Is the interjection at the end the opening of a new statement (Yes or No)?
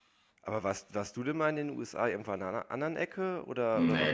Yes